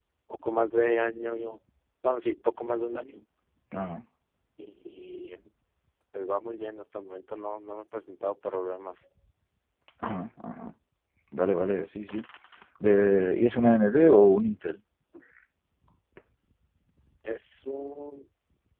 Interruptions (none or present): none